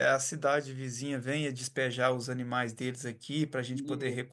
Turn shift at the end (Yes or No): No